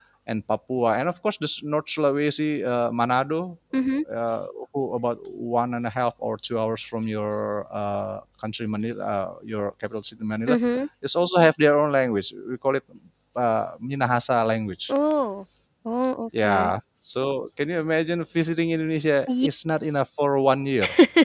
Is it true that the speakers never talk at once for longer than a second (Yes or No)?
Yes